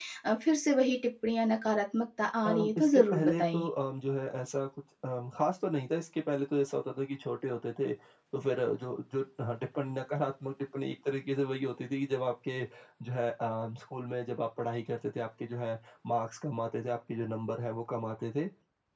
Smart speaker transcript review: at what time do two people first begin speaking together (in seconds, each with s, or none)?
2.5 s